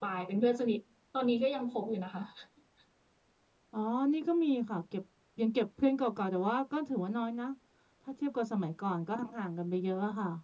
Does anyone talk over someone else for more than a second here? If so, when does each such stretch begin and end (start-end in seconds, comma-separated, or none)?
none